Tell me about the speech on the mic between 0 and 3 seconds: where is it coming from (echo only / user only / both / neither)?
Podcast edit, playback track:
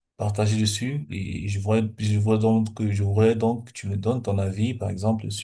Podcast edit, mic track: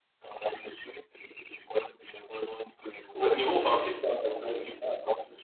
echo only